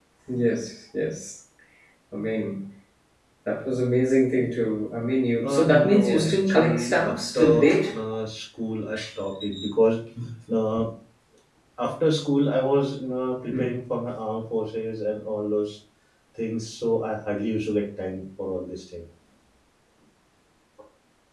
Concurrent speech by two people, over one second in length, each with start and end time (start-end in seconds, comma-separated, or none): 5.4-7.9